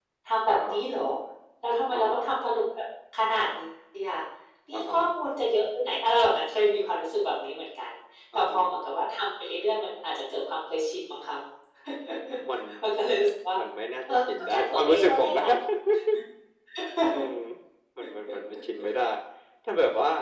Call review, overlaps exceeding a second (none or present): present